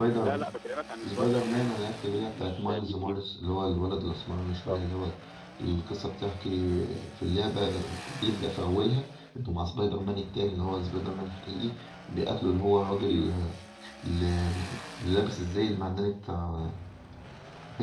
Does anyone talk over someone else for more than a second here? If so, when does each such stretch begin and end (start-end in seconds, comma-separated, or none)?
1.0-3.2